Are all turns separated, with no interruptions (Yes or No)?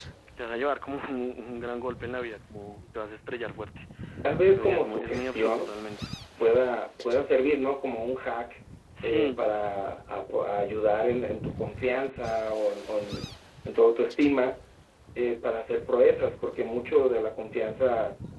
No